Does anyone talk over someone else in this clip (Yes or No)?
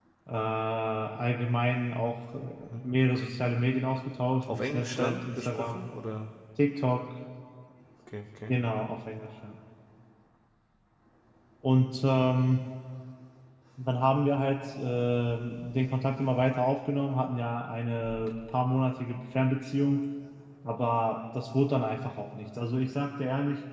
Yes